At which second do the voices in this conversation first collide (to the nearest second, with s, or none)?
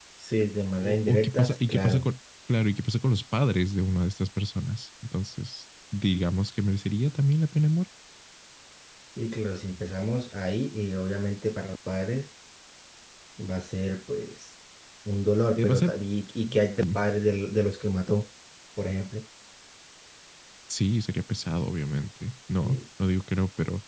1 s